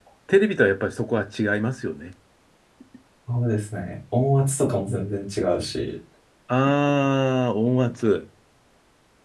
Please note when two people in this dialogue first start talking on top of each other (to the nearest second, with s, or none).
none